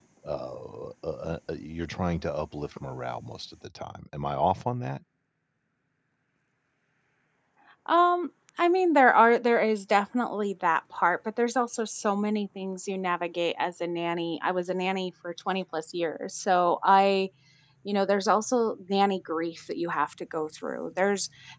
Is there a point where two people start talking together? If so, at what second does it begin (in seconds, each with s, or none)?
none